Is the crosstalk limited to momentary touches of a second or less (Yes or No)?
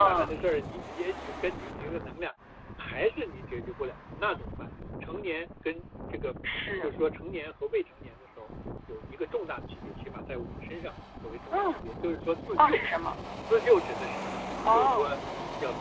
Yes